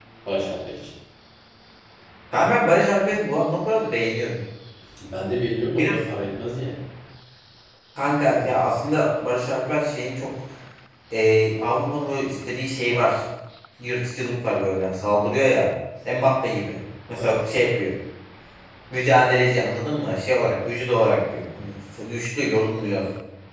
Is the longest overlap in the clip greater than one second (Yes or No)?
No